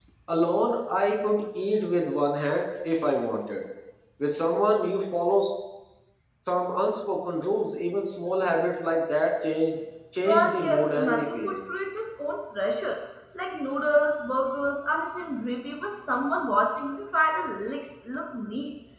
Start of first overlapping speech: 10.2 s

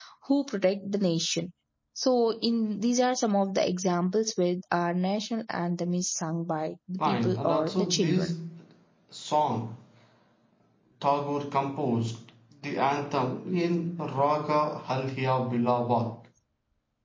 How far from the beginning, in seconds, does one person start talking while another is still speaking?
7.0 s

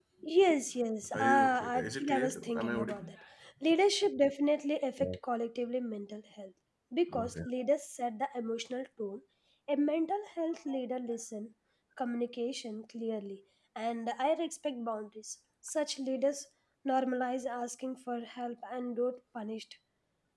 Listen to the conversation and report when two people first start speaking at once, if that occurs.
1.1 s

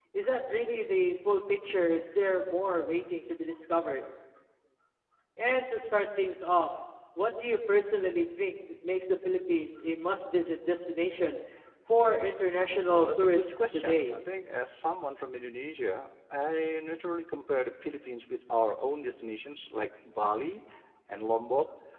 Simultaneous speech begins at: 12.9 s

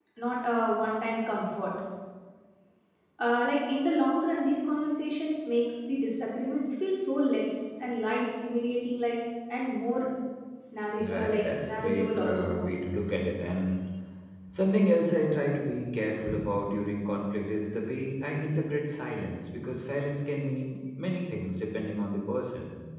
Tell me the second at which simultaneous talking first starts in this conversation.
11.0 s

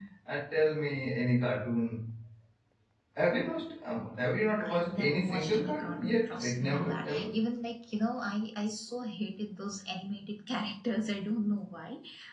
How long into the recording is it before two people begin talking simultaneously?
4.6 s

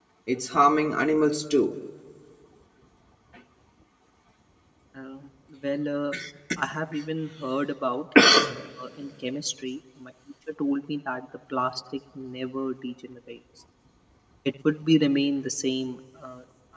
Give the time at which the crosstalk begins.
none

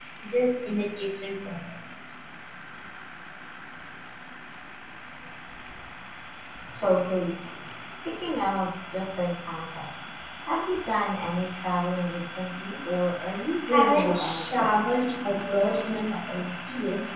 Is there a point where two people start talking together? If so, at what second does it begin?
13.7 s

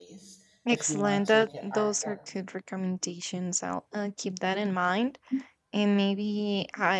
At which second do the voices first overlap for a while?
0.7 s

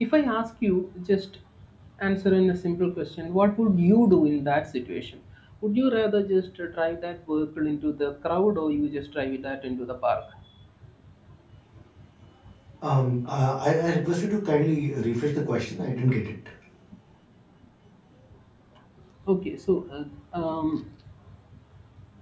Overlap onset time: none

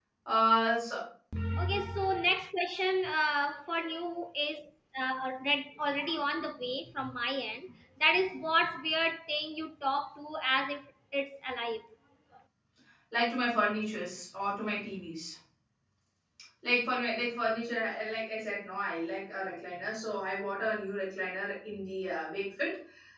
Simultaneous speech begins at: none

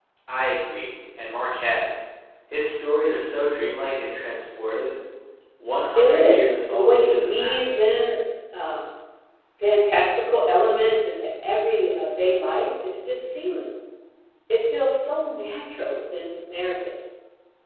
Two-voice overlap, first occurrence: 6.0 s

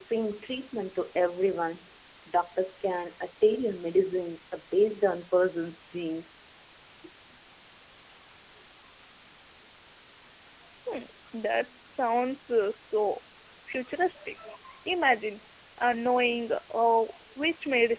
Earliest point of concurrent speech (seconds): none

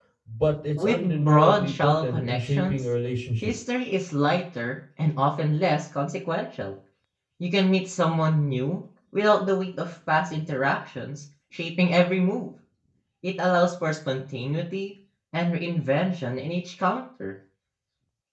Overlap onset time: 0.8 s

